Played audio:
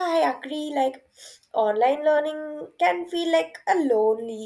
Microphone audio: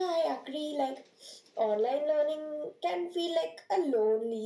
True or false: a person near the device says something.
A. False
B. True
A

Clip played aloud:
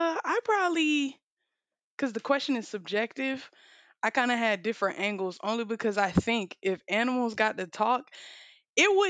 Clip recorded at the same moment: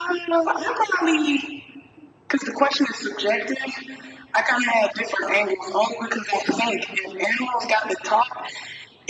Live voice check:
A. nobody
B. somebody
A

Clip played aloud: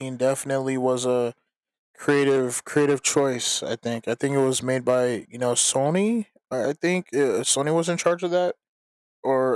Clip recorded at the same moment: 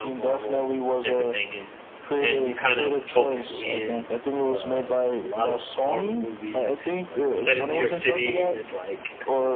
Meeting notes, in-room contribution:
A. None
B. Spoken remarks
B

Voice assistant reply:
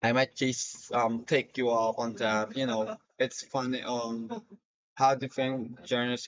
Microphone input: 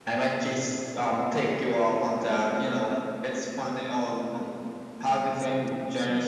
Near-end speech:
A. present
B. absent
A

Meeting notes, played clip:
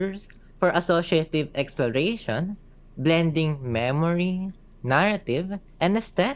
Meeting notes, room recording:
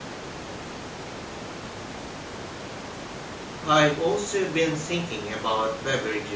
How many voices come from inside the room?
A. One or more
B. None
A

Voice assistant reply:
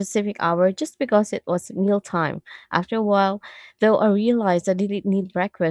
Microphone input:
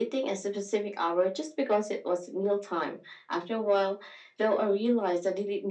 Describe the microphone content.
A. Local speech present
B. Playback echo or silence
B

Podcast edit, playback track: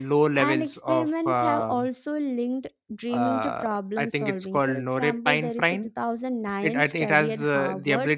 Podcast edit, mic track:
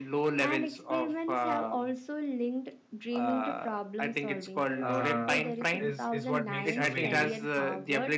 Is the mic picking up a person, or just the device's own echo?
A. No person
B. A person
B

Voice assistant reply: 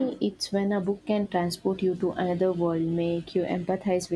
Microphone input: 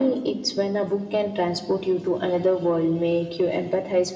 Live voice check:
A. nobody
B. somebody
A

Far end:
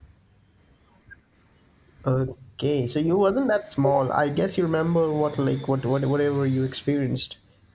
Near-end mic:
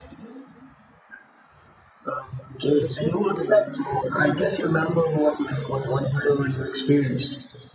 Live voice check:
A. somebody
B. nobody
A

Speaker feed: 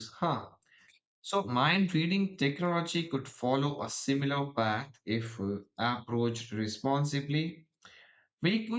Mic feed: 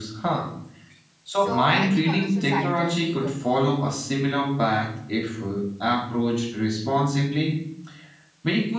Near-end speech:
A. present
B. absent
A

